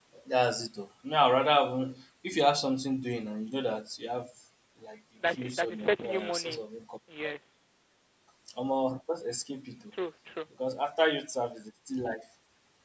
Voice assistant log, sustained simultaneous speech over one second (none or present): present